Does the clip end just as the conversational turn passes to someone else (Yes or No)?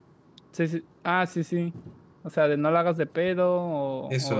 Yes